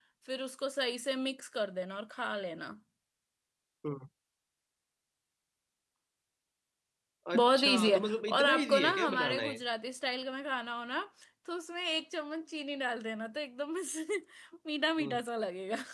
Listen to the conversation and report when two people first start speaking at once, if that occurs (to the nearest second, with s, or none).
7 s